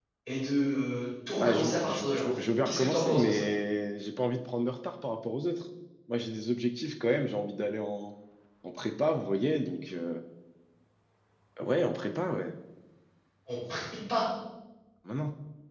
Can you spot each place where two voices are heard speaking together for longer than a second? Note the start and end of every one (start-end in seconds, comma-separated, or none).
1.4-3.4